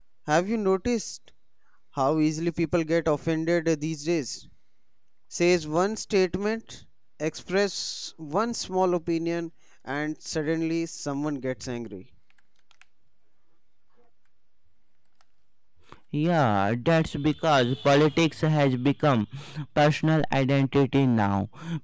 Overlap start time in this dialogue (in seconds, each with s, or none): none